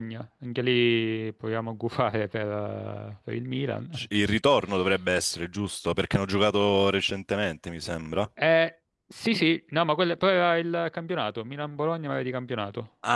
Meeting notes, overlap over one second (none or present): none